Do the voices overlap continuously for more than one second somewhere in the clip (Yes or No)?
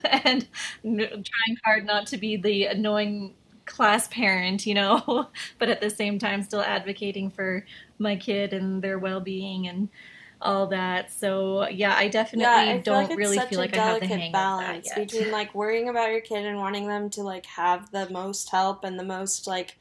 Yes